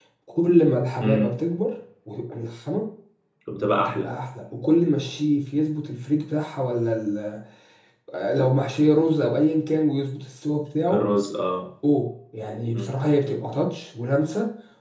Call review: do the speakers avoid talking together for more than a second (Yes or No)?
Yes